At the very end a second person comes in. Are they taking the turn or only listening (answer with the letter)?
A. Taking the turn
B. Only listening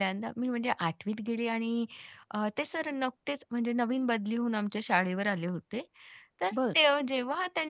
B